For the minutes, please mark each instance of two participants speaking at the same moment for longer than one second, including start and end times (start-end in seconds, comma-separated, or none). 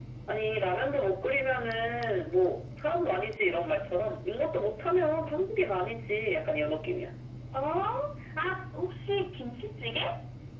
none